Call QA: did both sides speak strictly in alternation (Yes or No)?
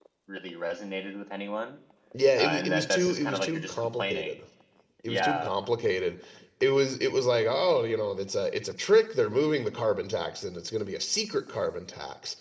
No